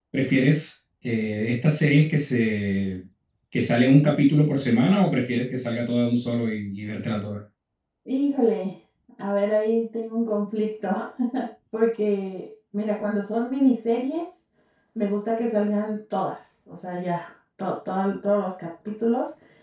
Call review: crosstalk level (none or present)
none